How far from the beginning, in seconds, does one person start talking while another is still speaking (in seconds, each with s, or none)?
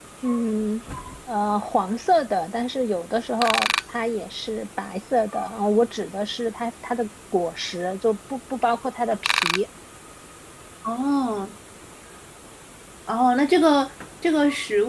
none